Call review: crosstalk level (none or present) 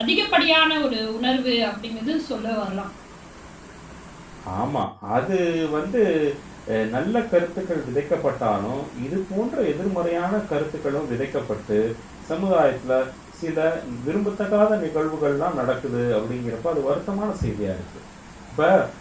none